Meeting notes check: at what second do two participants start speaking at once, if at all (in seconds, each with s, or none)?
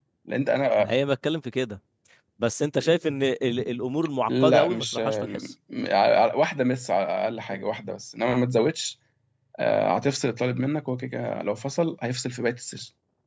4.3 s